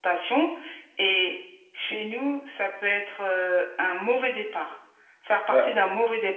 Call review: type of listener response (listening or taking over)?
listening